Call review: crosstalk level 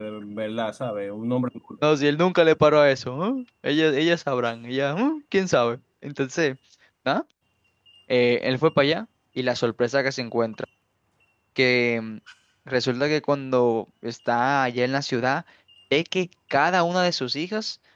none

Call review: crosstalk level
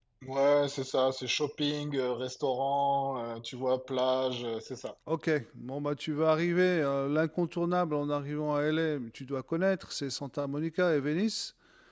none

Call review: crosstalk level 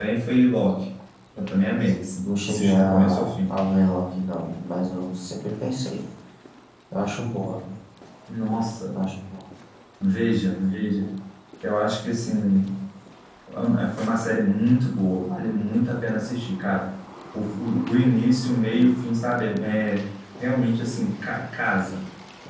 present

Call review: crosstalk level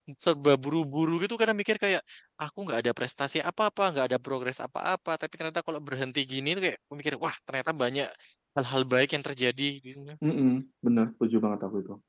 none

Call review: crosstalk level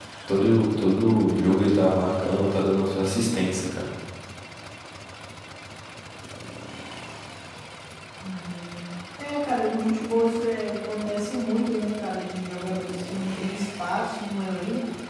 none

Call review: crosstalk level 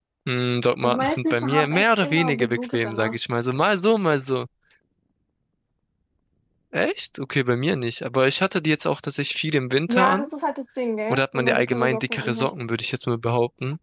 present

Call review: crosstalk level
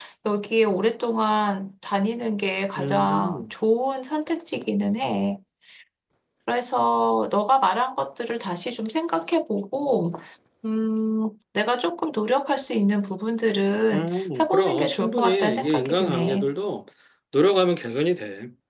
present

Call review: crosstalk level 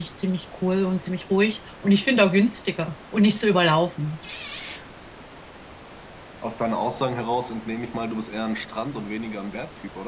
none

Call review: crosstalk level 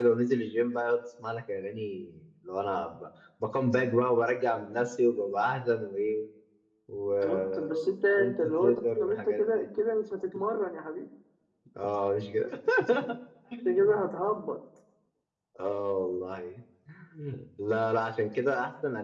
present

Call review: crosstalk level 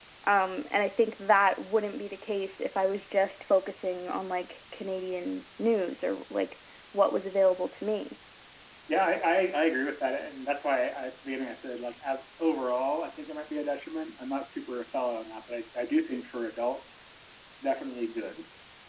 none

